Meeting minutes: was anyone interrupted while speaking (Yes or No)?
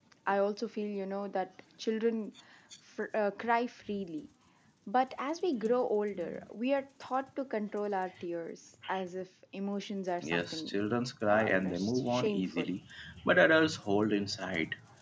Yes